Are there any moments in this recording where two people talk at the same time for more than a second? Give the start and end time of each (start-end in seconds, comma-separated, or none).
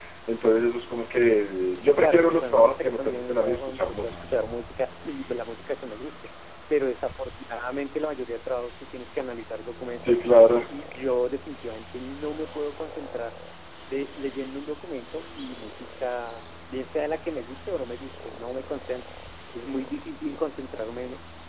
2.0-4.1